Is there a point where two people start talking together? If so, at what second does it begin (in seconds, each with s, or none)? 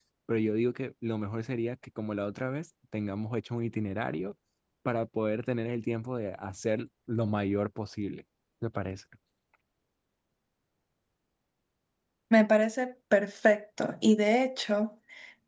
none